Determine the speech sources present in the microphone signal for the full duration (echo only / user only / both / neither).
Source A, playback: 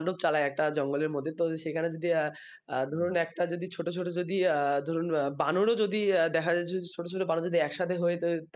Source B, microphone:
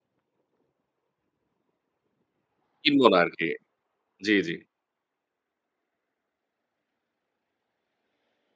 user only